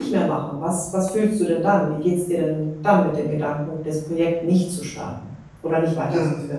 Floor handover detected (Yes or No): Yes